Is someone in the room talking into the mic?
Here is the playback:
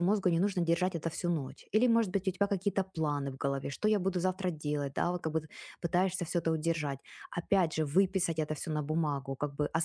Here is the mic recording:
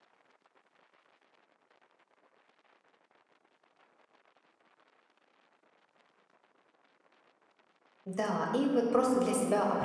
Yes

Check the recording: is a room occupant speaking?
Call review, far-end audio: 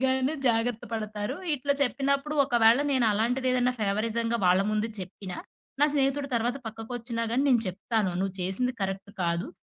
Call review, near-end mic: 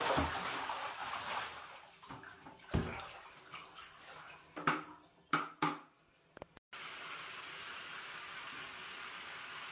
No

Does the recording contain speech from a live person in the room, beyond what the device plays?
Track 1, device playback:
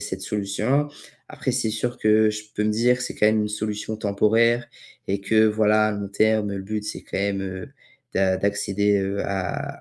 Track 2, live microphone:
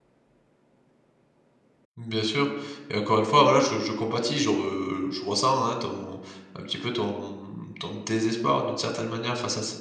Yes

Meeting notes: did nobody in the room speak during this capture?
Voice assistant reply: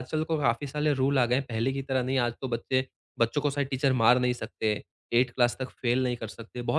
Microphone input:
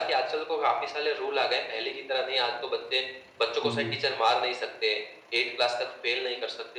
No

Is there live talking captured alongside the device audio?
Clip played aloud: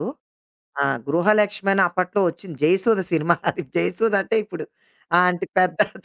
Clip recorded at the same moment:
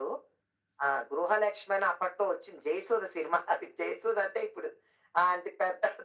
No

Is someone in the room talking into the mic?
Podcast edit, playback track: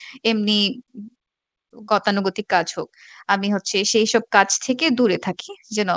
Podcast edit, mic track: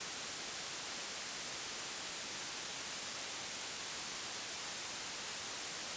No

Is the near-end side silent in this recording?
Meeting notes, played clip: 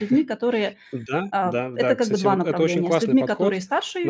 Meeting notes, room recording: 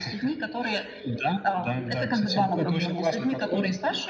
Yes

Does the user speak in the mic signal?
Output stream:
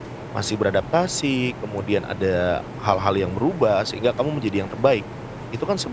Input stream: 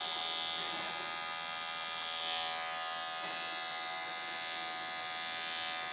No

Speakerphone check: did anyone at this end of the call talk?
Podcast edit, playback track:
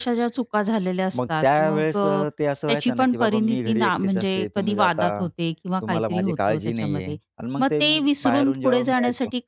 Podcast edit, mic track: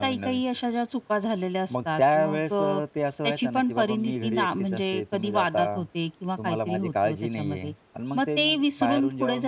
No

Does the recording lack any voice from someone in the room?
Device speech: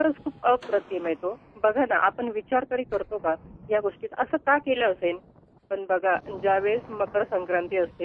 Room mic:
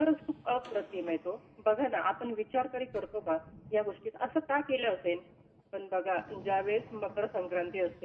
Yes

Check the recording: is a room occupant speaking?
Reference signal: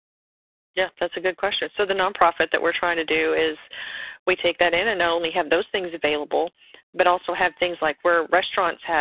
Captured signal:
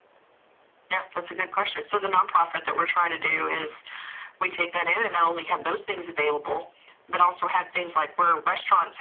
No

